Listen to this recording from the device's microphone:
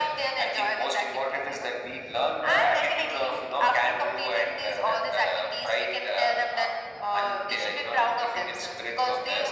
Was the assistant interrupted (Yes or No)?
No